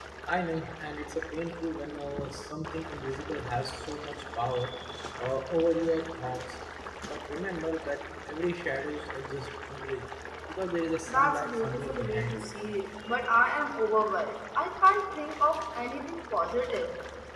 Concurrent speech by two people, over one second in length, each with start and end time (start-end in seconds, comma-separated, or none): 11.1-12.5